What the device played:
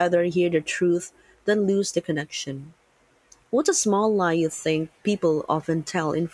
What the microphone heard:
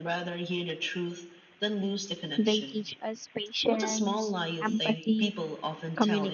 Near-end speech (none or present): present